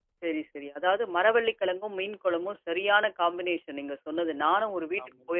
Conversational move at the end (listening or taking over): listening